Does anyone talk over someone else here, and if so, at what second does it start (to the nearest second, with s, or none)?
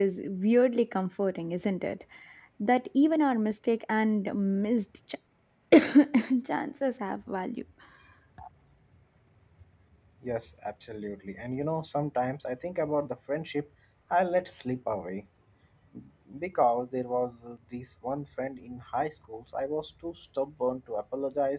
none